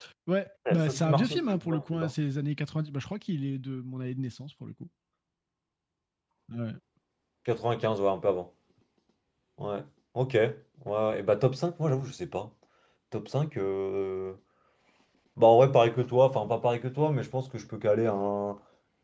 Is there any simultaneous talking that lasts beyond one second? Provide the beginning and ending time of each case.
0.7-2.1

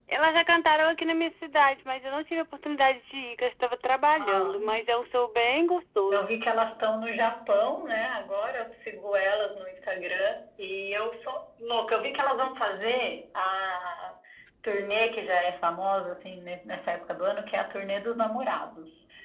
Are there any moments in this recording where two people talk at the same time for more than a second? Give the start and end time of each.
none

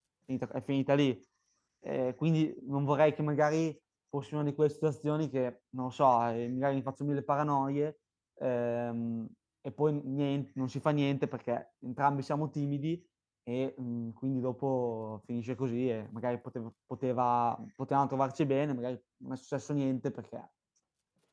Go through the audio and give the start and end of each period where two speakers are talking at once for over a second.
none

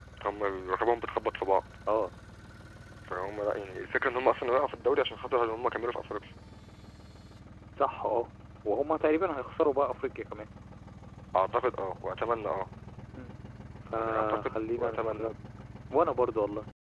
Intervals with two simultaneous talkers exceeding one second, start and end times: 14.0-15.3

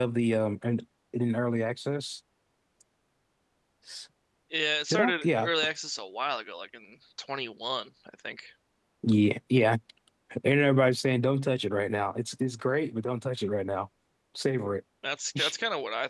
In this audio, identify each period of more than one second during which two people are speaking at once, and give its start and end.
none

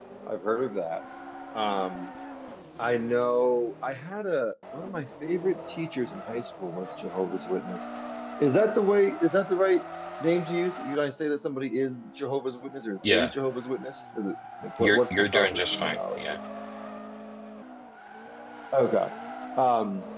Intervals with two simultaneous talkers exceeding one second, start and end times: 14.8-16.2

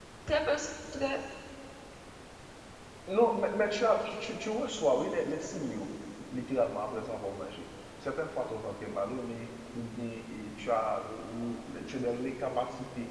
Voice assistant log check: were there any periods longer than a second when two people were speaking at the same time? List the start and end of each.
none

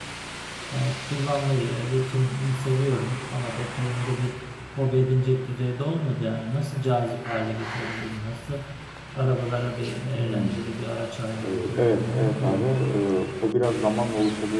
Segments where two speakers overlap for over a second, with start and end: 11.4-12.7

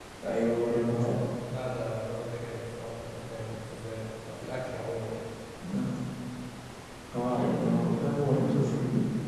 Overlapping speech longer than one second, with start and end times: none

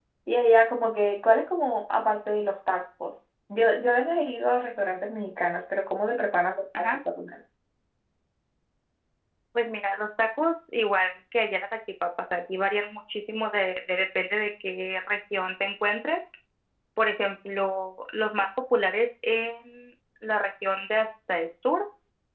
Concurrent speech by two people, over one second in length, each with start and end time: none

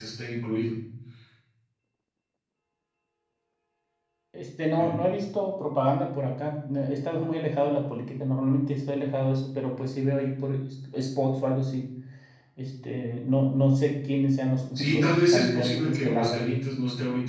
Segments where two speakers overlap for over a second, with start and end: 14.8-16.4

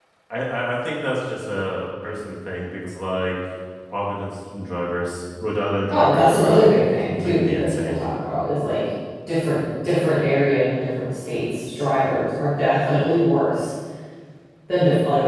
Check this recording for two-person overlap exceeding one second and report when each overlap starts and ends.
5.9-8.0

